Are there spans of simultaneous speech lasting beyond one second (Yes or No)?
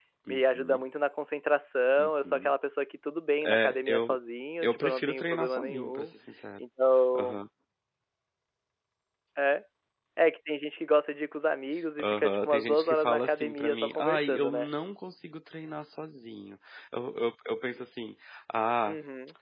Yes